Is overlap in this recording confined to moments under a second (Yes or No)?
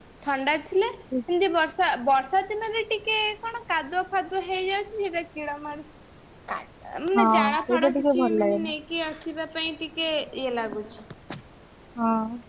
No